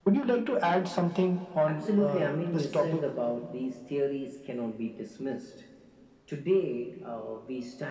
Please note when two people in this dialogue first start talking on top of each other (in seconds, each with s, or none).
1.7 s